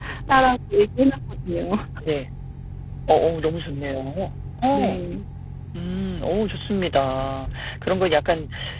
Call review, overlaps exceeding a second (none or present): none